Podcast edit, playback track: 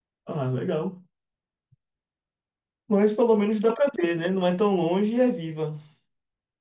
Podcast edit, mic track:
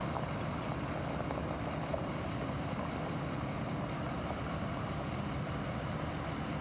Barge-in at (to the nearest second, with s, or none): none